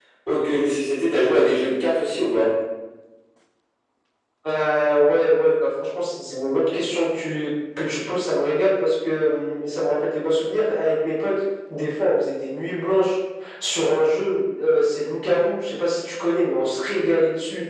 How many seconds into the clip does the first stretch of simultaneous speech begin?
none

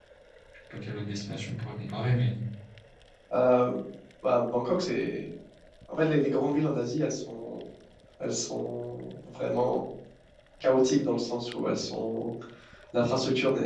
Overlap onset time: none

